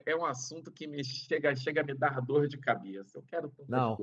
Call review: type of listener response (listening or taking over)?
taking over